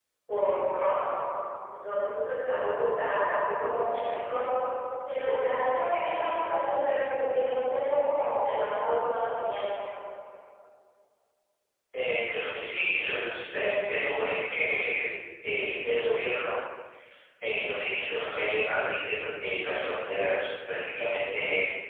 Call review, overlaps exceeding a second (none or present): none